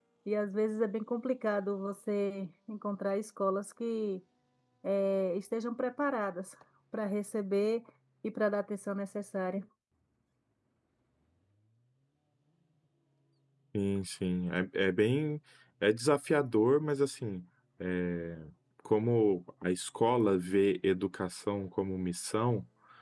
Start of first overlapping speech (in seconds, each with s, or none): none